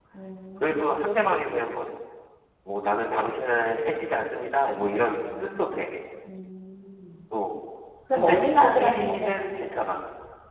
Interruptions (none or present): present